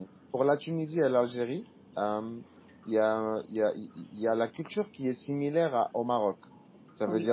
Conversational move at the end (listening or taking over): listening